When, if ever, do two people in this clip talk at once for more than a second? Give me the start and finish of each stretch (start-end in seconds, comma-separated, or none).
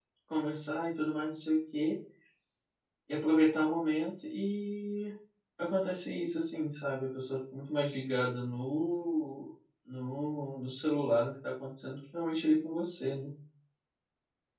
none